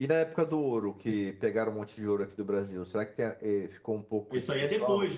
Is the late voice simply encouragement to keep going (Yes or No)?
No